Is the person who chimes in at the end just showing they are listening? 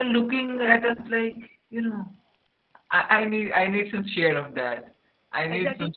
No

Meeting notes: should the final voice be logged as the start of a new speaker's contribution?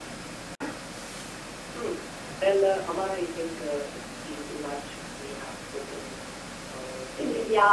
Yes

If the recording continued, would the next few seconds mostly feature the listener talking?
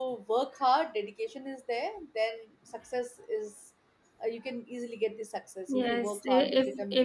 Yes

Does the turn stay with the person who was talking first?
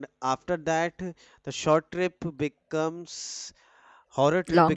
Yes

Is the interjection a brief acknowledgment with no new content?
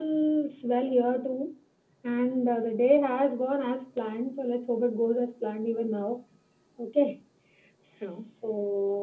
Yes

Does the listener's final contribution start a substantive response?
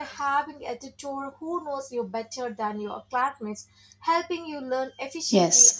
Yes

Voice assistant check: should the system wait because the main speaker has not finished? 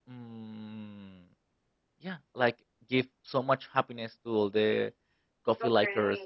No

